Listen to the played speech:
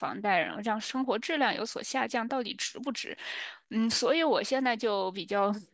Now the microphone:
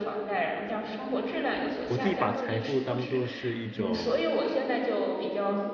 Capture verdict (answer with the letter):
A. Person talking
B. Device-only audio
A